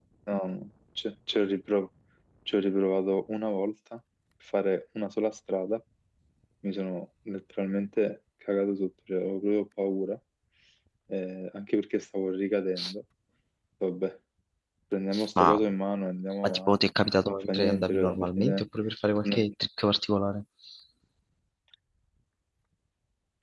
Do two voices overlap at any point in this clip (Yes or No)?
Yes